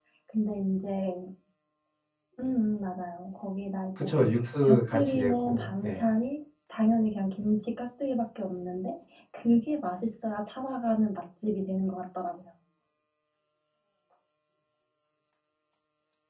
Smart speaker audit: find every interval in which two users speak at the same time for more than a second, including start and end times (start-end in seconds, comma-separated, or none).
4.6-6.1